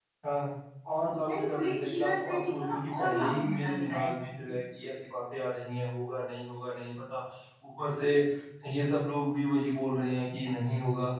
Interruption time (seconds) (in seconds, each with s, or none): 1.3 s